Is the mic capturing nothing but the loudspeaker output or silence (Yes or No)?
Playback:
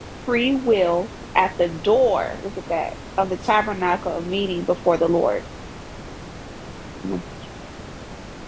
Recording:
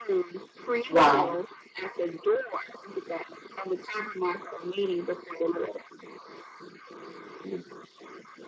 No